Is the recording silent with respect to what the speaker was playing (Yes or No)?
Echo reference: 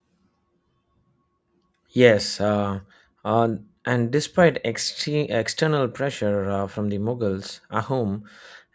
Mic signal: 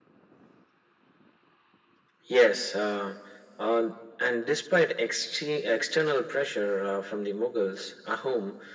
No